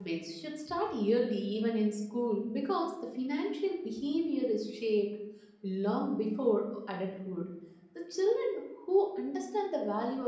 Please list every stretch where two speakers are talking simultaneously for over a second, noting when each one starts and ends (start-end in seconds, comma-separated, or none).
none